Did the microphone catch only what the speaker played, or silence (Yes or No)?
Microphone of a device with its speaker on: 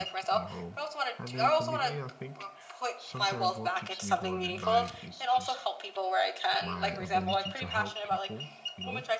No